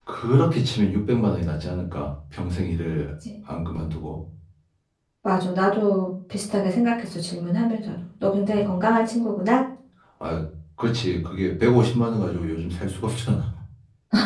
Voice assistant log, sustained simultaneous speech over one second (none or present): none